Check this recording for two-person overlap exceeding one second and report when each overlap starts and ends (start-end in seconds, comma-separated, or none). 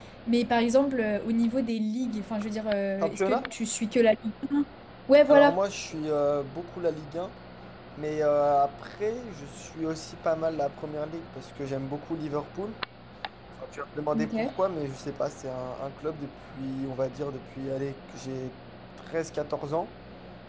none